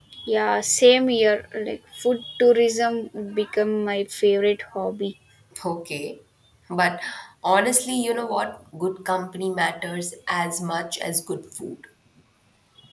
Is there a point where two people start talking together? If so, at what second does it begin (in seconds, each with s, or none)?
none